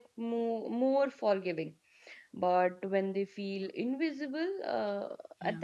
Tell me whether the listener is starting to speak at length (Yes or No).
No